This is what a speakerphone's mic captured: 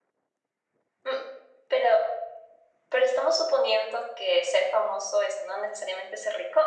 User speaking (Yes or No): No